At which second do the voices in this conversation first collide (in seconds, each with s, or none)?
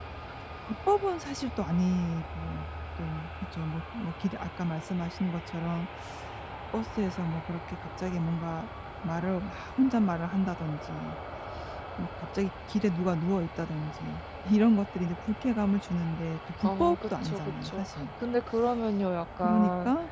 16.6 s